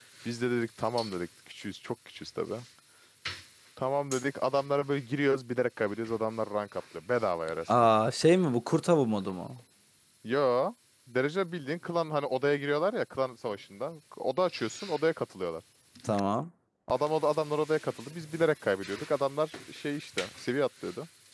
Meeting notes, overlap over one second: none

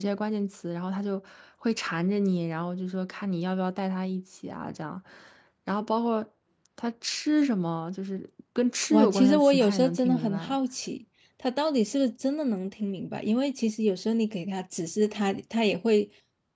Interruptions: present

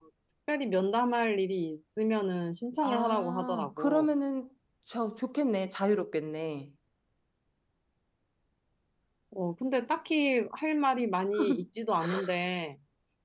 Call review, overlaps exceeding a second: present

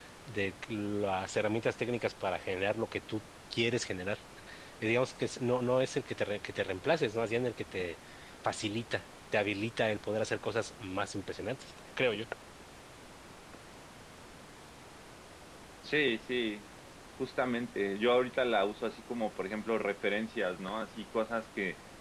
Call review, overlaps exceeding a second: none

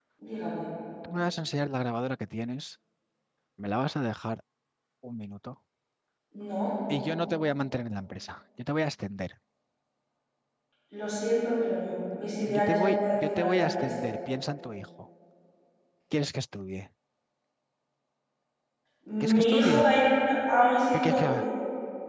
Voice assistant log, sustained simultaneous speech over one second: present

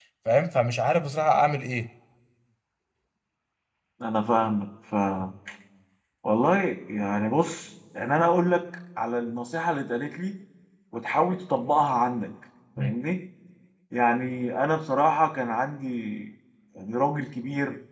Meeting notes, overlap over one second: none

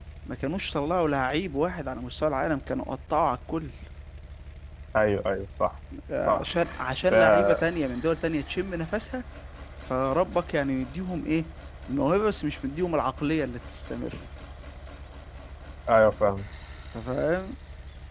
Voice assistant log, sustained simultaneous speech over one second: none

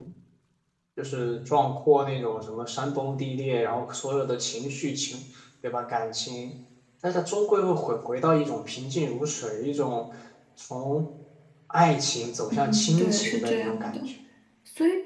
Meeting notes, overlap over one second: present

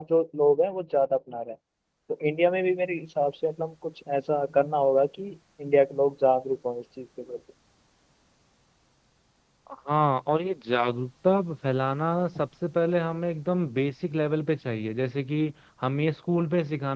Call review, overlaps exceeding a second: none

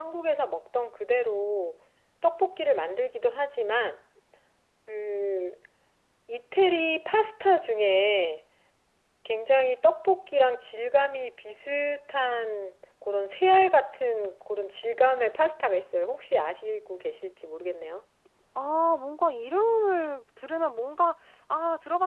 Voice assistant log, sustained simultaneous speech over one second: none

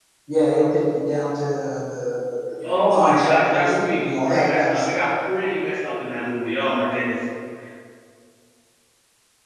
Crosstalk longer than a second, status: present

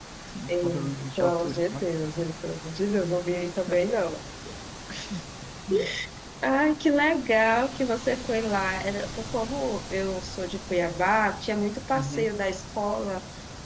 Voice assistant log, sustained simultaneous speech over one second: present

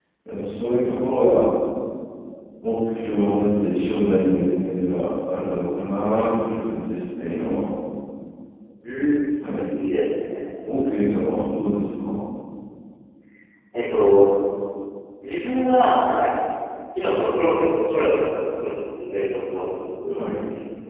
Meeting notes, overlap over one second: none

